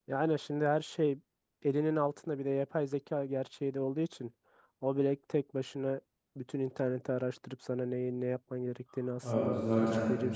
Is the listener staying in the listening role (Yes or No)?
No